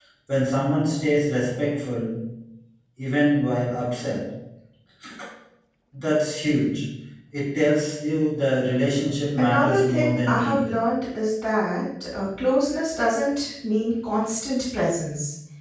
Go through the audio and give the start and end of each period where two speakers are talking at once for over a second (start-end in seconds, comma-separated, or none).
9.4-10.8